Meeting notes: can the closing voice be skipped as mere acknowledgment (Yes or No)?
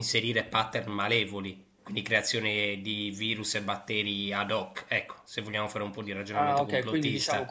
No